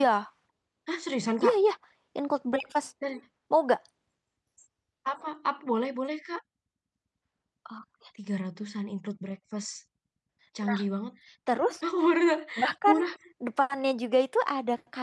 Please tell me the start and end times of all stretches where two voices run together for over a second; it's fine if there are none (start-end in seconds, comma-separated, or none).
none